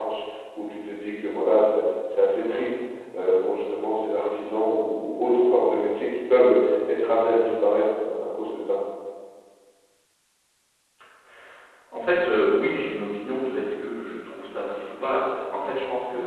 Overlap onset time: none

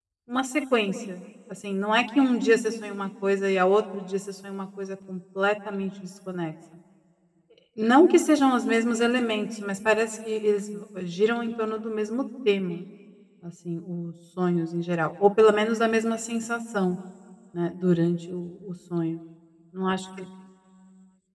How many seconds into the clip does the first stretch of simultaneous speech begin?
none

